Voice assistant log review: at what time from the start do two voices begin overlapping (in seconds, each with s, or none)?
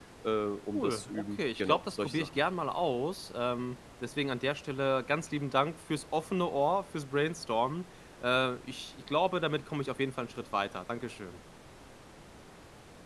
0.7 s